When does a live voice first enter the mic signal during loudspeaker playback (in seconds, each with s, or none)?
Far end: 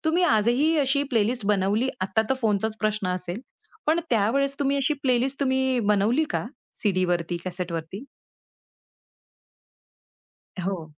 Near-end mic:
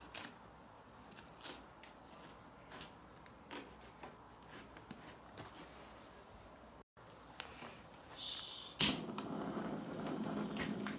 none